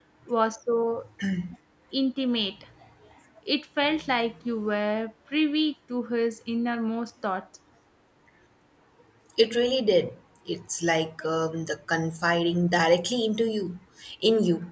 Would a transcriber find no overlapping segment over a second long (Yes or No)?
Yes